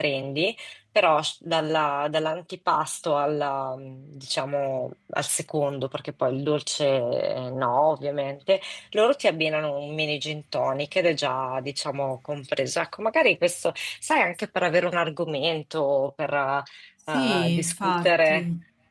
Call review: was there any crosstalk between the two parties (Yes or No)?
Yes